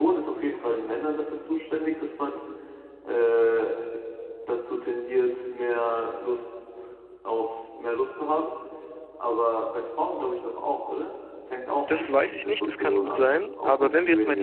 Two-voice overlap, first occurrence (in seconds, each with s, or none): 11.8 s